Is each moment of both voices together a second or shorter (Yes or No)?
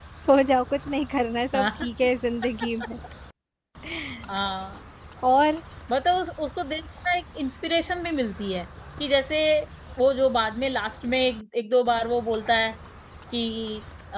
Yes